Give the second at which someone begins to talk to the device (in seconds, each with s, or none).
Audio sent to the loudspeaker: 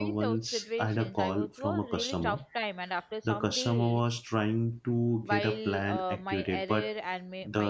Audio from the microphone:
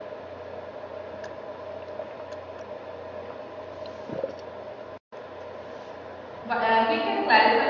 6.4 s